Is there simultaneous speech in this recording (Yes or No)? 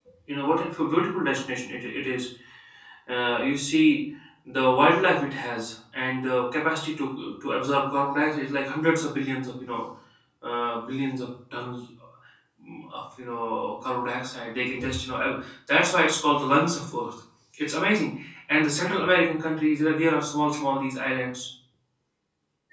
No